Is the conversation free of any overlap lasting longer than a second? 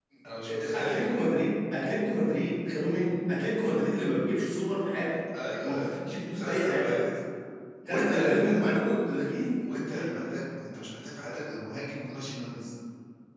No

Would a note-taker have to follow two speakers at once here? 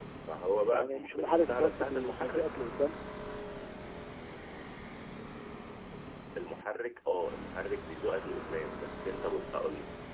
Yes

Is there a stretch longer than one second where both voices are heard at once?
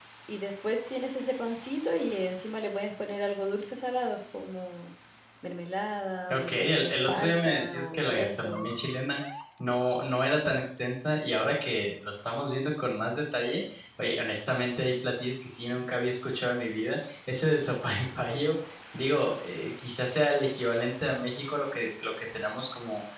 Yes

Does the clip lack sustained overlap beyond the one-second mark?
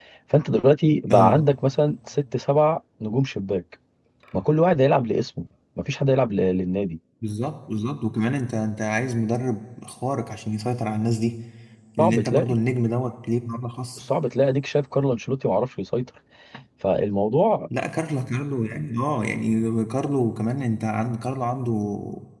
Yes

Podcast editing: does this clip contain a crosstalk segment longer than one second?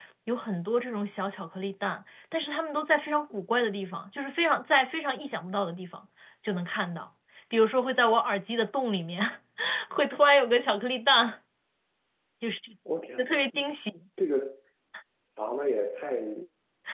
No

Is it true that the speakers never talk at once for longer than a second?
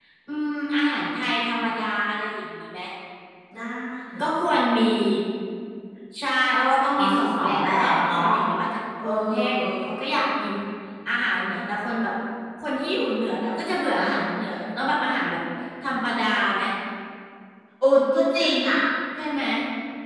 No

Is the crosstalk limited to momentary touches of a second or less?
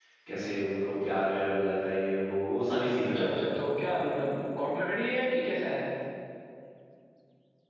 Yes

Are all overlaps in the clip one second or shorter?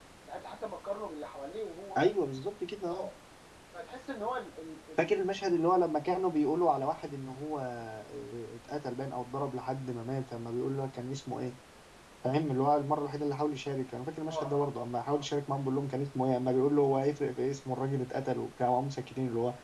Yes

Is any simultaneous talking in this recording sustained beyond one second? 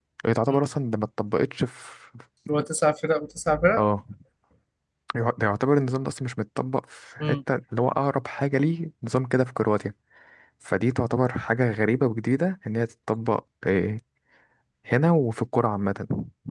No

